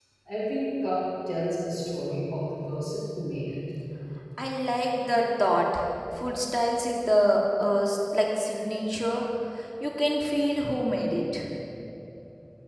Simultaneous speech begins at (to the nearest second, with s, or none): none